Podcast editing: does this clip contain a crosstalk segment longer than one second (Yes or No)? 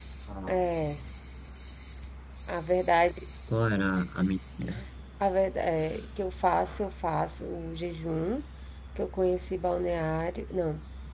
No